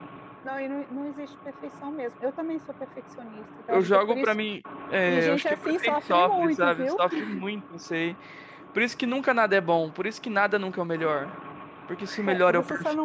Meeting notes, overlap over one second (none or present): present